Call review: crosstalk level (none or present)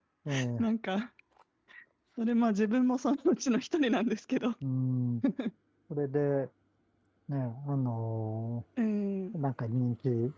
none